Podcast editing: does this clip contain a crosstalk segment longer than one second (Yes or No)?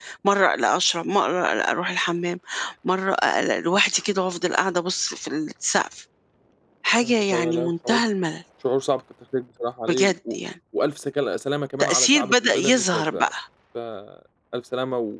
Yes